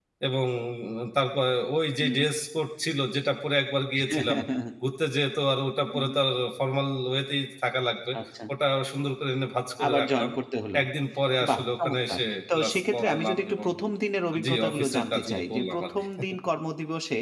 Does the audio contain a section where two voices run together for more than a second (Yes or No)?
Yes